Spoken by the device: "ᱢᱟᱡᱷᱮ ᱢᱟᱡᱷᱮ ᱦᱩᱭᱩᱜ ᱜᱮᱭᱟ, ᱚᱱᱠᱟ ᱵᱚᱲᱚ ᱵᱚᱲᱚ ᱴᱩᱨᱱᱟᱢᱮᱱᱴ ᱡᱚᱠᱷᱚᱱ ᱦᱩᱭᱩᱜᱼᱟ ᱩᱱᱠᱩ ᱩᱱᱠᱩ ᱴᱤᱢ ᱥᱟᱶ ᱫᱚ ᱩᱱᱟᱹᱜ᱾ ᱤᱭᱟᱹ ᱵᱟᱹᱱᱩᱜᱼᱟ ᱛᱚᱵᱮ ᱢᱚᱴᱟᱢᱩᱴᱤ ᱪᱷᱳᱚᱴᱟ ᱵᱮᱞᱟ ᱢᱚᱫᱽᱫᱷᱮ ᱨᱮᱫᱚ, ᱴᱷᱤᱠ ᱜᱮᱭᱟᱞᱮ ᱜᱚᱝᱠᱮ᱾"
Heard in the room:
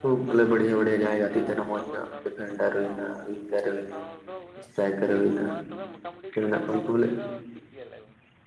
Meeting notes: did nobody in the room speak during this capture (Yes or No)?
No